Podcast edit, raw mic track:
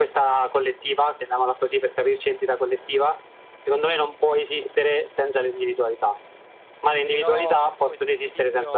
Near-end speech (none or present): present